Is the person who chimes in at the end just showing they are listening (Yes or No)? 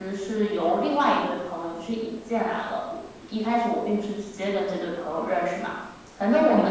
Yes